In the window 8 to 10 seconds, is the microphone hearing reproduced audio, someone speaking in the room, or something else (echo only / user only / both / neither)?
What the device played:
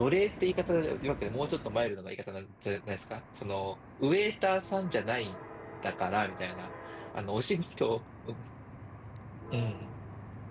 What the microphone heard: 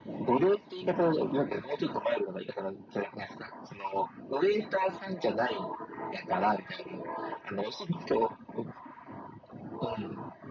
echo only